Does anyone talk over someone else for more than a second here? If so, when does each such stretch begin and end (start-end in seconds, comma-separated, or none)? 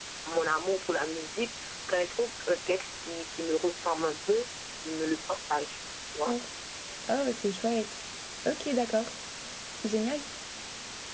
none